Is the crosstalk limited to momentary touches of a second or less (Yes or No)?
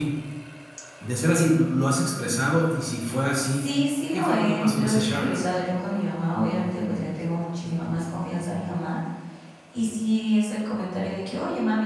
No